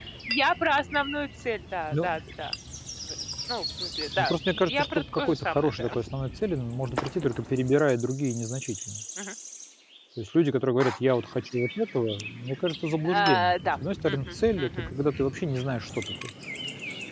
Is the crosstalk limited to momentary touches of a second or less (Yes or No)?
No